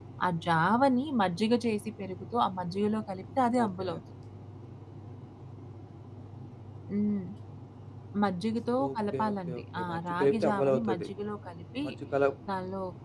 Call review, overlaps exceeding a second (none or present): present